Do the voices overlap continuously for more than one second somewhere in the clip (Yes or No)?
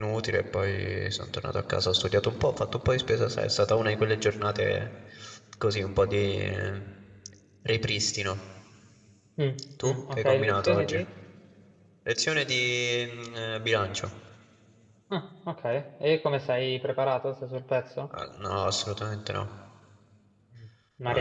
Yes